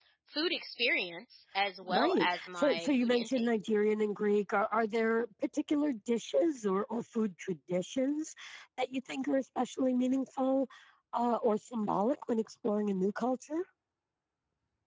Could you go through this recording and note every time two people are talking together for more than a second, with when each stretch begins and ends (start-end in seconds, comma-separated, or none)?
1.8-3.5